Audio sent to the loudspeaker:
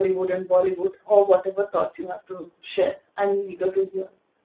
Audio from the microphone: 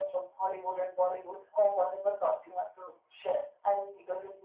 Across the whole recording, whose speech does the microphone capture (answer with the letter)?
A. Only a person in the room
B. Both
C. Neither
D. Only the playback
D